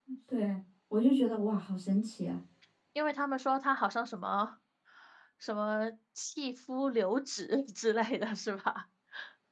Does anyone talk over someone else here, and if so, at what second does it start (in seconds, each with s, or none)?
none